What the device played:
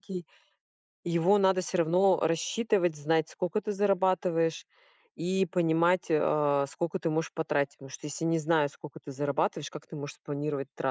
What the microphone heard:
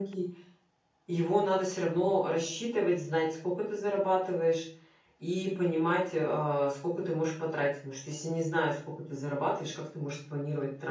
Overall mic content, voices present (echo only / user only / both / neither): echo only